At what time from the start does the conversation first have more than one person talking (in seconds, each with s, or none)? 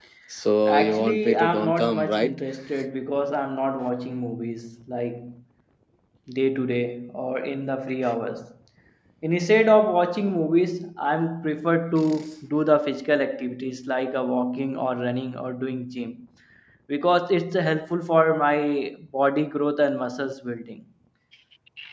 0.7 s